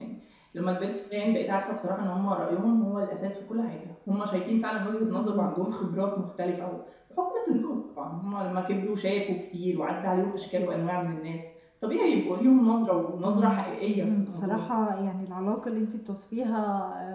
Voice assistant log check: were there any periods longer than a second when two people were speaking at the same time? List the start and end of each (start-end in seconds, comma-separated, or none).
13.2-14.6